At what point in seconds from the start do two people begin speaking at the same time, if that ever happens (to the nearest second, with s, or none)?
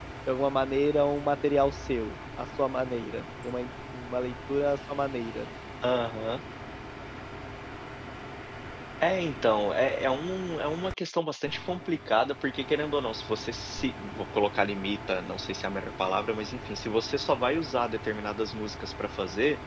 none